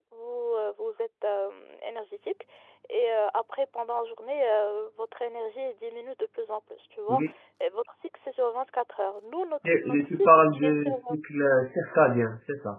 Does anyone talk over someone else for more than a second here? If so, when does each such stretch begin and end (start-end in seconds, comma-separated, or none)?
9.6-11.0